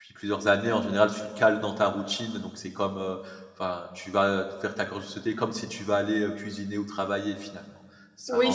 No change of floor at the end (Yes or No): No